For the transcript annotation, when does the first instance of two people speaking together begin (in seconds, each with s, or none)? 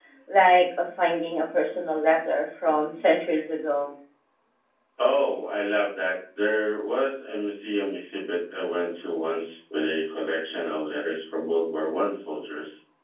none